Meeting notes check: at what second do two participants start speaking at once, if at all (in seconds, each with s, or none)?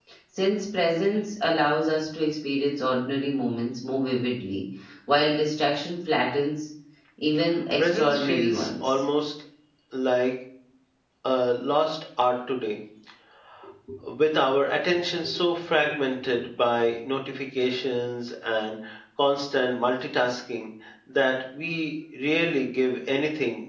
7.8 s